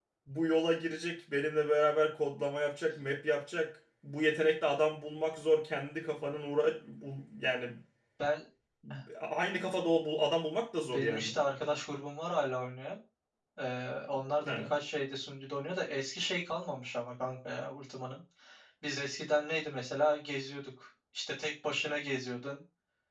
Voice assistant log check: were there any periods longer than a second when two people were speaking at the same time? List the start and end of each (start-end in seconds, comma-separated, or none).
none